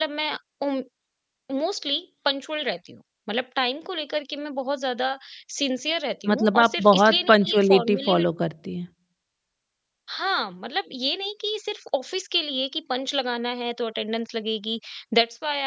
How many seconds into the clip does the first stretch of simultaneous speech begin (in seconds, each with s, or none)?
6.3 s